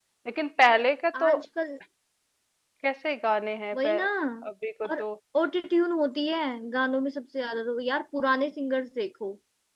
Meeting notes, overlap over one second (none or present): none